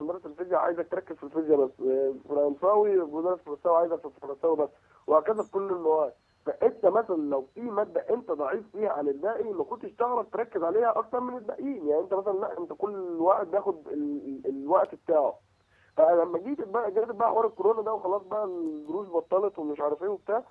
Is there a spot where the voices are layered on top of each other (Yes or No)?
No